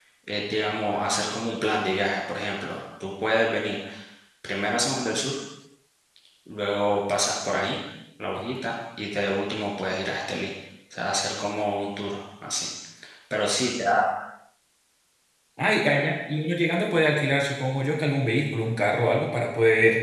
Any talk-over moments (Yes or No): No